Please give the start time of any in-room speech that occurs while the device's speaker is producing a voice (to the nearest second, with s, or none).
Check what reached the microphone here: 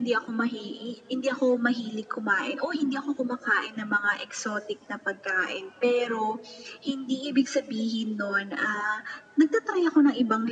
none